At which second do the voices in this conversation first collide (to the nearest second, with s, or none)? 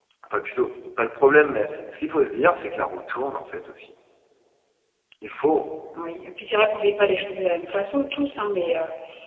none